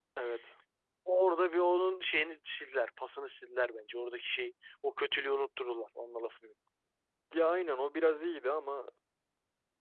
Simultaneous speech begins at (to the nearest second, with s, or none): none